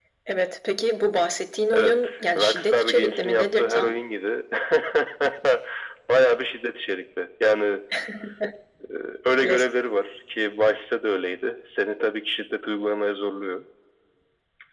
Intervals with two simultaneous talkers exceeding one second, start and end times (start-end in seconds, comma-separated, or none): 1.7-4.0